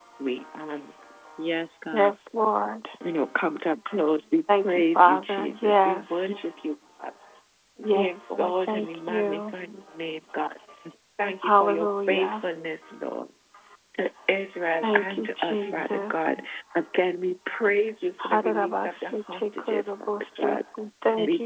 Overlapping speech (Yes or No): Yes